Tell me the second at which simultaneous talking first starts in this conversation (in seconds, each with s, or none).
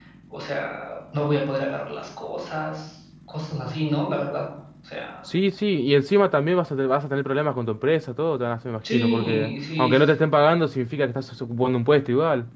8.8 s